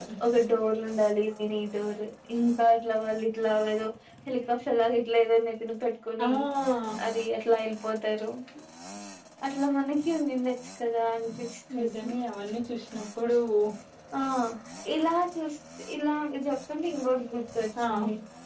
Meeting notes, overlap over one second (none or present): none